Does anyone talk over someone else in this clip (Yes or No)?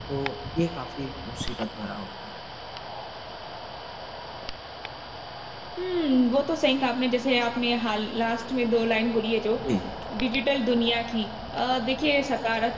No